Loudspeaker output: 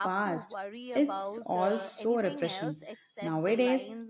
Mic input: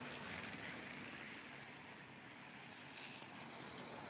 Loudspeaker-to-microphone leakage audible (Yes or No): No